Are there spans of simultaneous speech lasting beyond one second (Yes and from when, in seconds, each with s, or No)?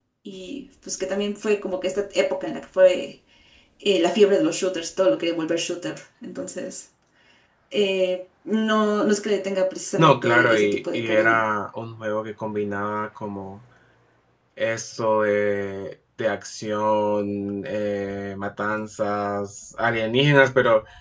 Yes, from 10.0 s